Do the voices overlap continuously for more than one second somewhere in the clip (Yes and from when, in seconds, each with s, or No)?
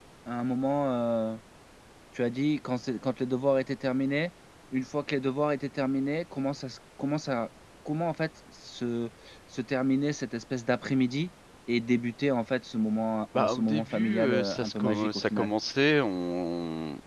Yes, from 13.4 s